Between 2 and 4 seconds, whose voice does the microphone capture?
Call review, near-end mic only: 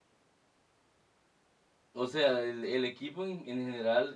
user only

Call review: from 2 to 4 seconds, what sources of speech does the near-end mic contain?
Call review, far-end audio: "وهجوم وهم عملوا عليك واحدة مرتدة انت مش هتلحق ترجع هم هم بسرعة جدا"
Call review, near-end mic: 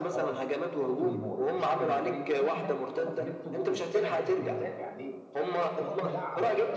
both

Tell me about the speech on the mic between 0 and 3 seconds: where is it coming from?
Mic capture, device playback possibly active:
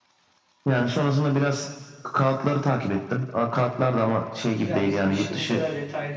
echo only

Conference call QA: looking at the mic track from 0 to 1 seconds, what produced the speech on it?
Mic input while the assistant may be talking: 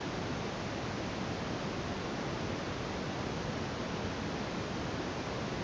neither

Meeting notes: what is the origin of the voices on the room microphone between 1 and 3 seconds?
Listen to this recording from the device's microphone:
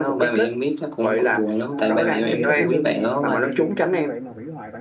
both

